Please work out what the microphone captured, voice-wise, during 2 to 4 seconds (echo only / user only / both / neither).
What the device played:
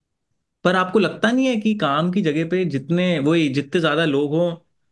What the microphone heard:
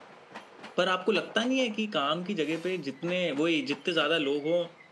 echo only